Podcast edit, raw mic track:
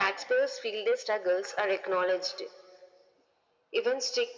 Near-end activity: none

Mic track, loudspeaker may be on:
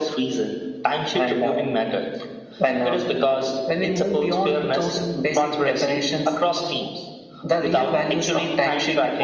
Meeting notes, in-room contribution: none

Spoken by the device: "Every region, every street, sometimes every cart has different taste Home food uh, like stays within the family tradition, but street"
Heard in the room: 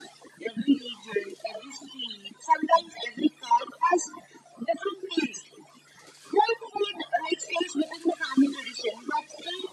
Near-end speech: none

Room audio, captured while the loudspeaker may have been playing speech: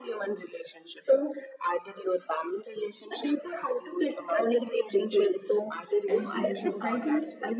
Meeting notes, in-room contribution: present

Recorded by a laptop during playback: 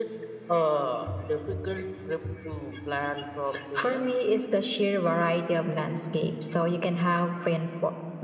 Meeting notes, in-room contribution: none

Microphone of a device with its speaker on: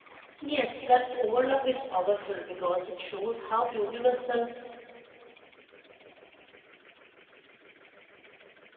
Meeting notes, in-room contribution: present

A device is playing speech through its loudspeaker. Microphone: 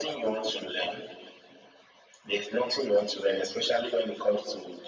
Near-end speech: none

